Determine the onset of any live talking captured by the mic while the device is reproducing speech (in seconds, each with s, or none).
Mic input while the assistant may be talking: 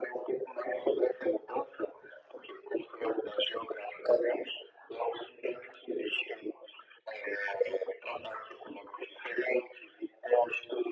none